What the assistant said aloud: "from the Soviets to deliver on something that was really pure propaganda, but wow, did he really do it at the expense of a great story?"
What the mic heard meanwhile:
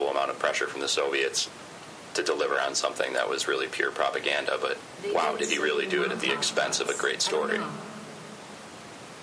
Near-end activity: present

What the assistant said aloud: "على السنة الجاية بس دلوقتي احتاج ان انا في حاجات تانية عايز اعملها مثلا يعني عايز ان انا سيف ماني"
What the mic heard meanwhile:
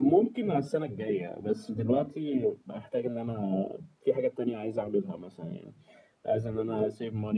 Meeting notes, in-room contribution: none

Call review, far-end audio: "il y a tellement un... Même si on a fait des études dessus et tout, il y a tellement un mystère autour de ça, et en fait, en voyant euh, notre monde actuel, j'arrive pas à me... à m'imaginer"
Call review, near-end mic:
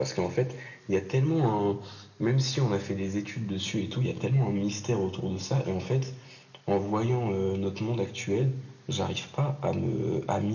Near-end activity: none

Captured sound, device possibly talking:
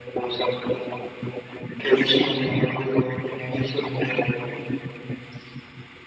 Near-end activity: present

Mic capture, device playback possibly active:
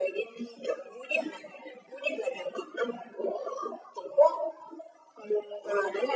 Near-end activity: none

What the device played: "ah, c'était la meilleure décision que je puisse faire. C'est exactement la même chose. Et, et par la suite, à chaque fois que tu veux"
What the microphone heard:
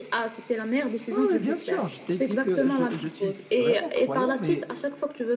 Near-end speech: present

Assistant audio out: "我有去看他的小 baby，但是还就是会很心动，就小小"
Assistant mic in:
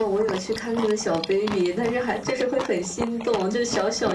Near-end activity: none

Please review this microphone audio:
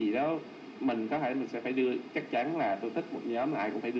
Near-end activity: none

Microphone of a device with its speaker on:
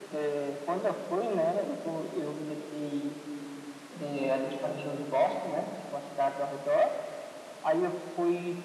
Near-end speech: none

